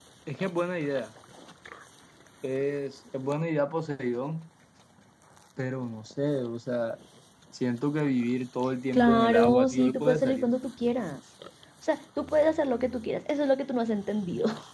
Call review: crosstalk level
present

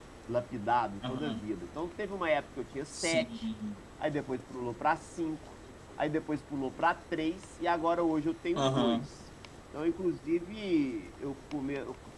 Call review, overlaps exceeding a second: none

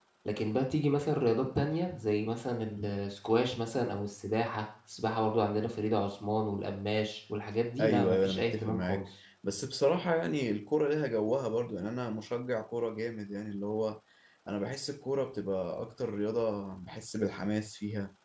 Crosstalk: present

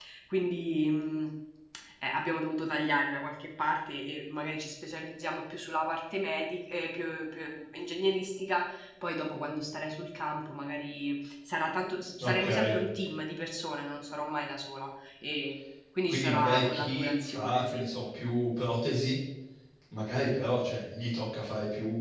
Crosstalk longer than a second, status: present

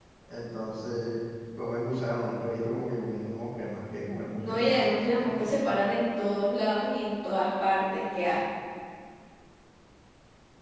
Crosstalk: present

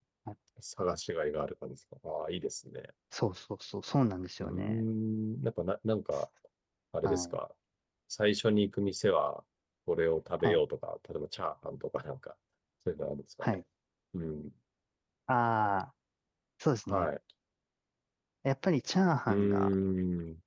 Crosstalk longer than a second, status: none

